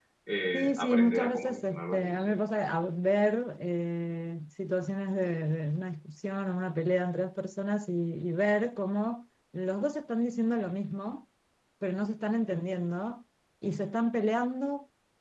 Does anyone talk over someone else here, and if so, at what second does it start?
0.5 s

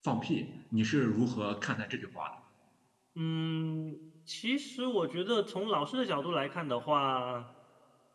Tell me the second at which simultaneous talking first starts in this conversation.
none

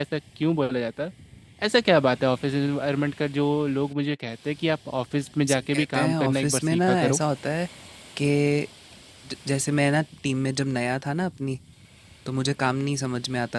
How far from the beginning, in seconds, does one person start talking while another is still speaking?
5.5 s

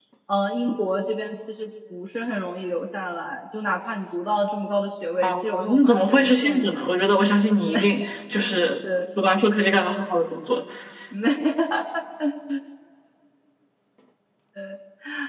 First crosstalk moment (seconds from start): 5.2 s

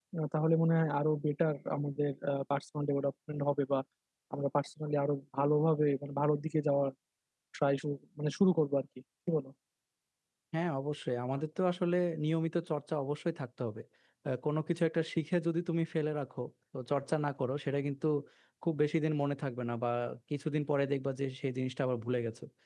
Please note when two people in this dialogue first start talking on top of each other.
none

